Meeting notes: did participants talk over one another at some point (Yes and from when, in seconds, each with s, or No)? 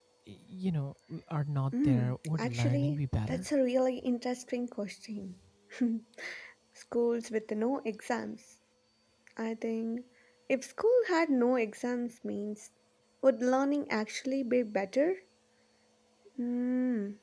Yes, from 1.7 s